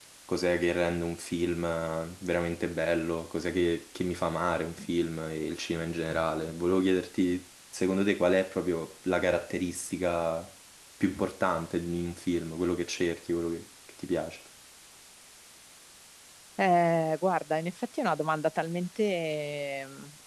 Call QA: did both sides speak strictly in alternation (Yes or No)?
Yes